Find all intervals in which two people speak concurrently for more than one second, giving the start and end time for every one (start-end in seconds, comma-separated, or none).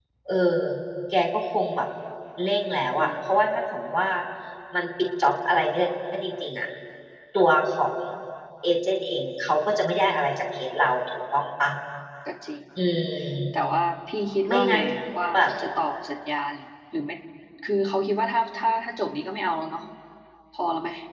none